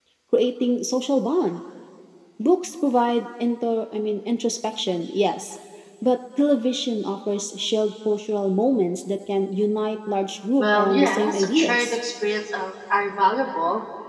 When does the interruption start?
11 s

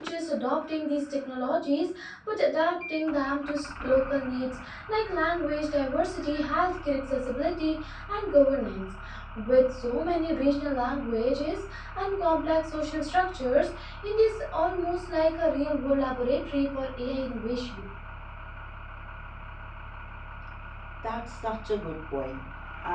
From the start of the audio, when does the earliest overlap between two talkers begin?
none

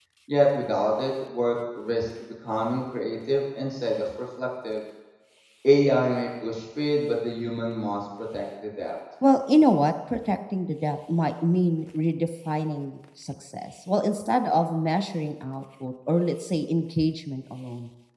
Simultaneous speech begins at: none

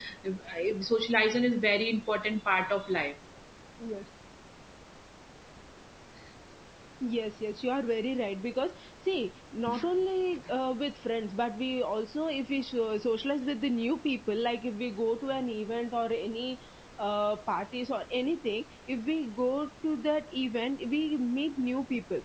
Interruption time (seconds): none

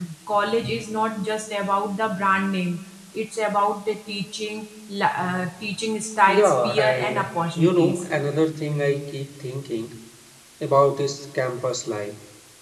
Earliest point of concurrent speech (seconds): 6 s

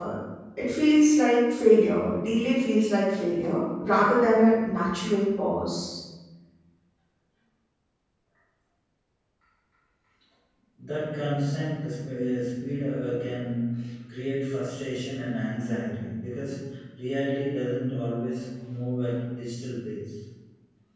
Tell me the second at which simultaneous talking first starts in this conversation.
none

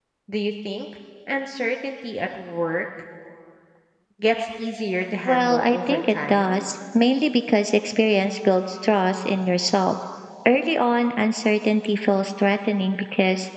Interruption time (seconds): 5 s

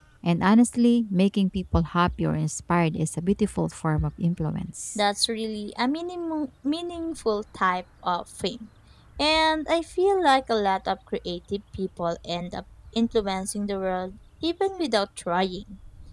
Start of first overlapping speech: none

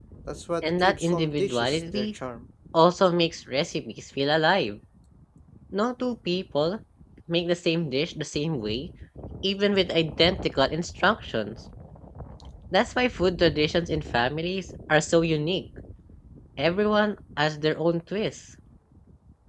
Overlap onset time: 1 s

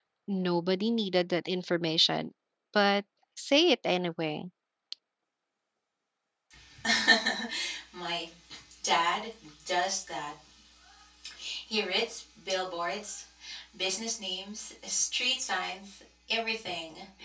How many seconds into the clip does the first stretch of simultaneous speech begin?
none

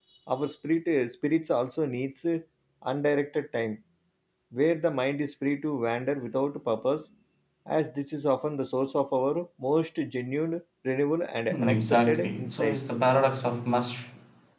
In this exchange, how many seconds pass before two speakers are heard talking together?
12 s

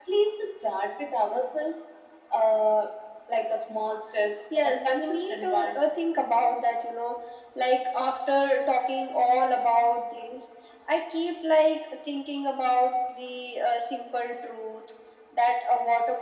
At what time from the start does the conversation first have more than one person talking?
5 s

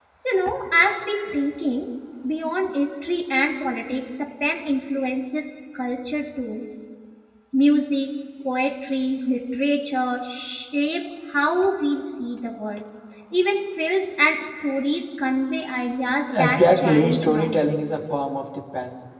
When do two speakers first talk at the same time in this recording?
16 s

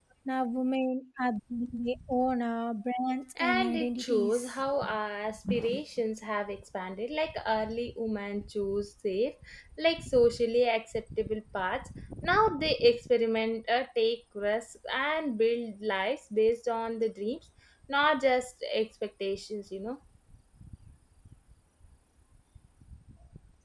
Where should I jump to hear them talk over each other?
3 s

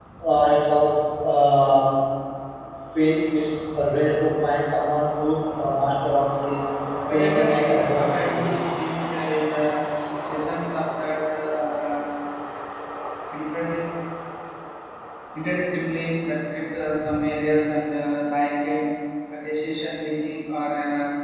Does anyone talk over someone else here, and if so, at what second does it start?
7 s

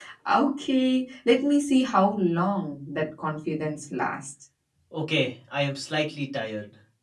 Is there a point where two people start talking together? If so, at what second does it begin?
none

